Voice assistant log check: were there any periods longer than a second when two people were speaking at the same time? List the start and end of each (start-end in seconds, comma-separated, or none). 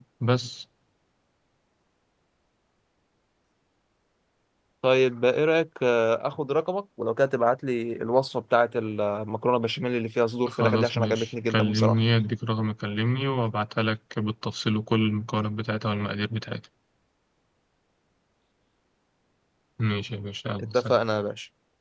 10.5-12.0